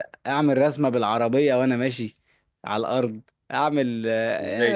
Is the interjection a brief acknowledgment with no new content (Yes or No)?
No